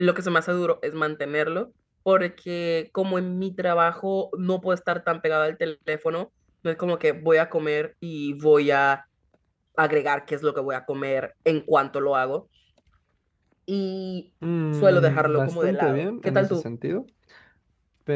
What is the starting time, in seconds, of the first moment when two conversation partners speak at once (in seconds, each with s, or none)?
14.8 s